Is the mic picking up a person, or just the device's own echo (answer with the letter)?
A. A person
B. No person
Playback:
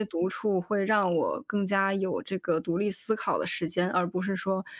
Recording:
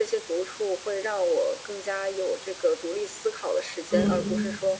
A